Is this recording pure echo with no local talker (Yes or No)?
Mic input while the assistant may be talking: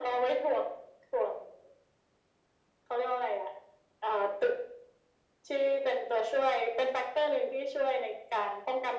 Yes